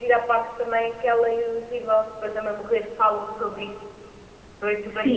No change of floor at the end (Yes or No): No